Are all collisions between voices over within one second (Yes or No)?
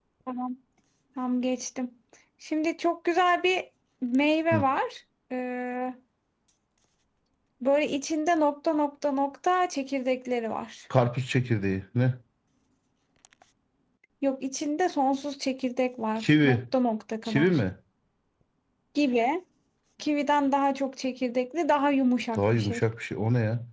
Yes